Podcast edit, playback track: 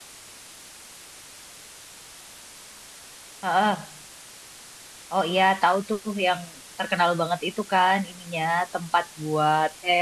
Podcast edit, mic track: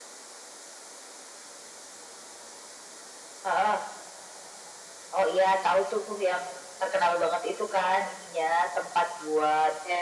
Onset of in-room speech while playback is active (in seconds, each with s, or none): none